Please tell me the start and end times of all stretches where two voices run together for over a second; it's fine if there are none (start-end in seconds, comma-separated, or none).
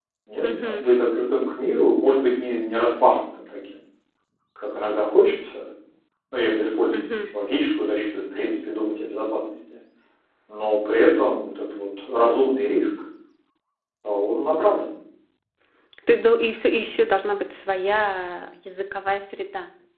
none